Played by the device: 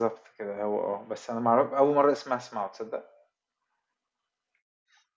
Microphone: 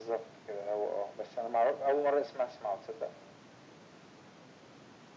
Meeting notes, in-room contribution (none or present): none